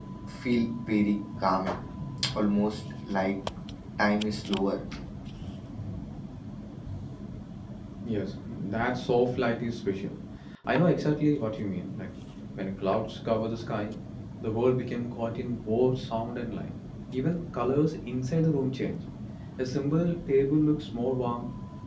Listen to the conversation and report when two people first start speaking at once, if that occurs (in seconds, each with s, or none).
none